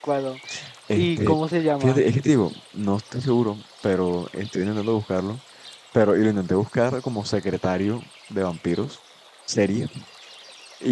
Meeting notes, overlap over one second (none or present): none